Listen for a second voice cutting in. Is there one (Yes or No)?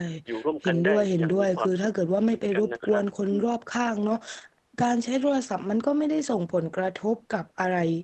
Yes